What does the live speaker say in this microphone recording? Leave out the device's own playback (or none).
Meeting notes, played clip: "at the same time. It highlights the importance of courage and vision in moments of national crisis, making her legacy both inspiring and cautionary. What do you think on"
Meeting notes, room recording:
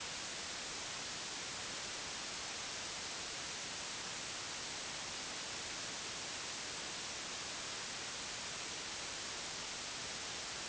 none